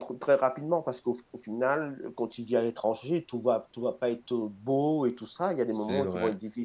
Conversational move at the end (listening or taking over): listening